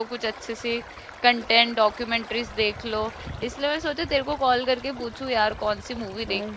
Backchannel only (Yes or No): No